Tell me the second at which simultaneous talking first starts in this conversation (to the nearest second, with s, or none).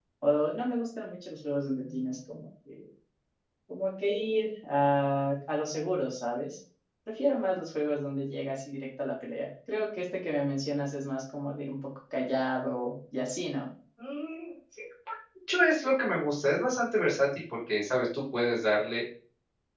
none